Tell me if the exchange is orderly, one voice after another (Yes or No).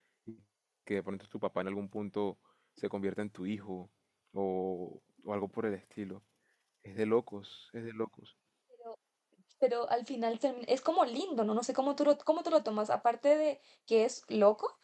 Yes